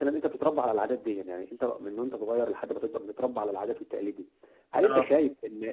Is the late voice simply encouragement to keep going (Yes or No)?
Yes